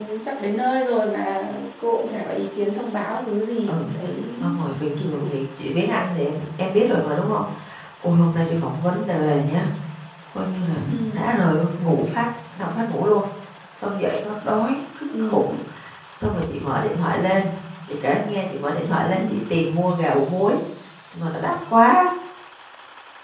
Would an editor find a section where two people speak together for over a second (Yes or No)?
No